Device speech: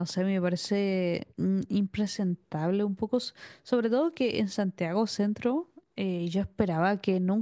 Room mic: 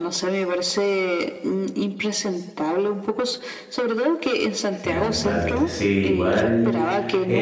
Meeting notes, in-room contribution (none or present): present